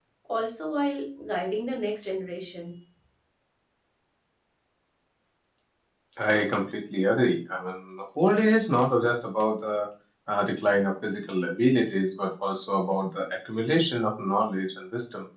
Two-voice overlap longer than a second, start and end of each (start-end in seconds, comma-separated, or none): none